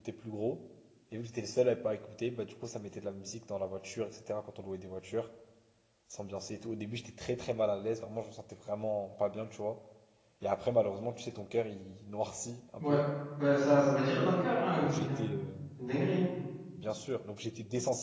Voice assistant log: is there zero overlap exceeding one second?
Yes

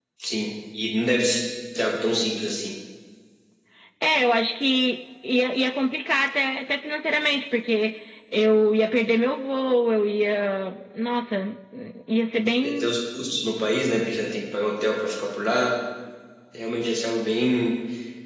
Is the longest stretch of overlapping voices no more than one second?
Yes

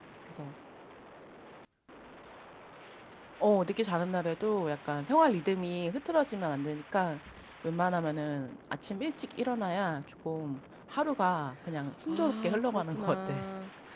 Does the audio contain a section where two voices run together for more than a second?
Yes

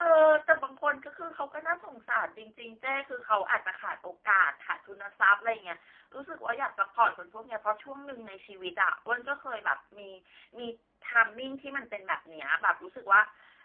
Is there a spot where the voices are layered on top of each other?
No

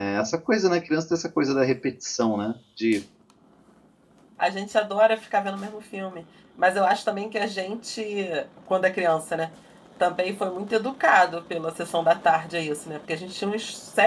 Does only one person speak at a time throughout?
Yes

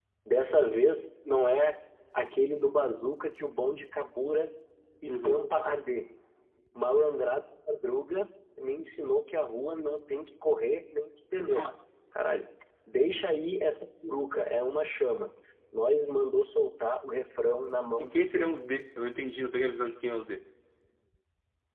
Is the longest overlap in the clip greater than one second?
No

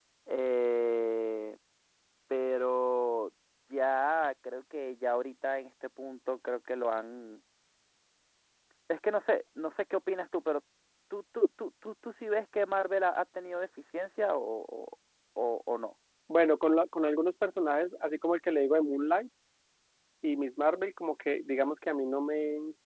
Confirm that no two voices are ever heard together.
Yes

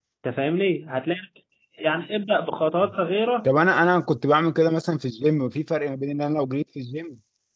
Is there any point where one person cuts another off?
No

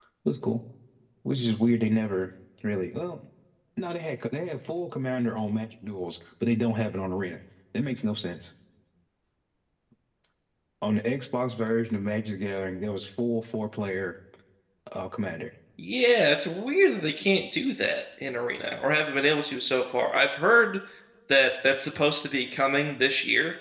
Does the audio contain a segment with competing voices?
No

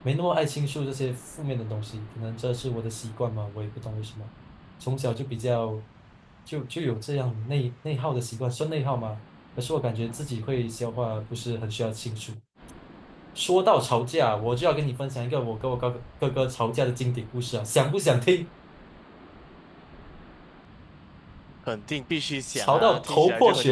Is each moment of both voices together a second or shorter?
No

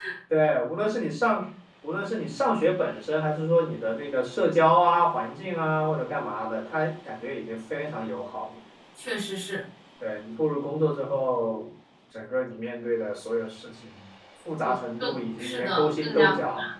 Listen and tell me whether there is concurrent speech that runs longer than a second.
Yes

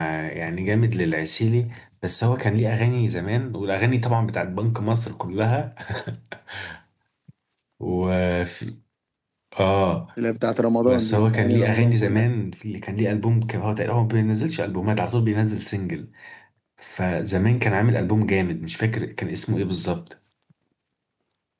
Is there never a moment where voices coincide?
No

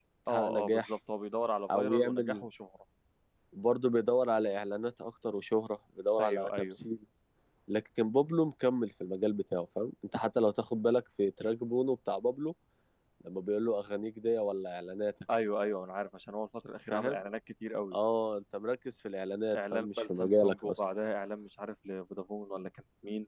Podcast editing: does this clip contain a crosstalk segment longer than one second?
Yes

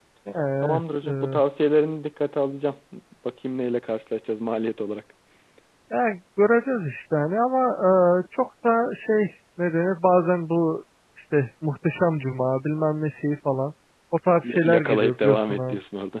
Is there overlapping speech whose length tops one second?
Yes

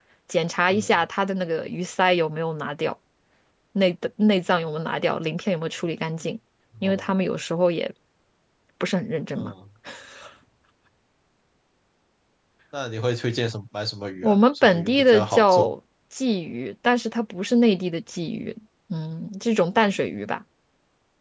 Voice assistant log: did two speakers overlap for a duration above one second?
Yes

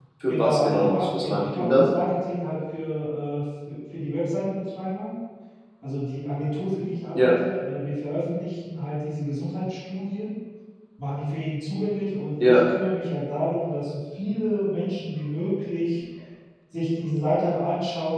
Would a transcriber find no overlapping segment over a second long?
No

